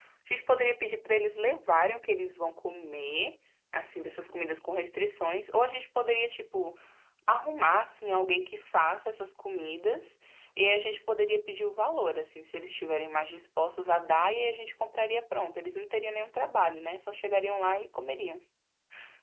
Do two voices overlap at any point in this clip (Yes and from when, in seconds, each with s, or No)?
No